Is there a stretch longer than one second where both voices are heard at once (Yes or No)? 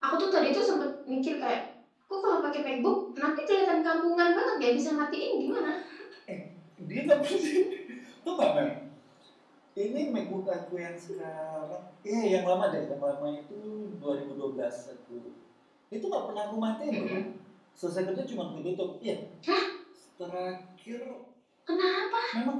No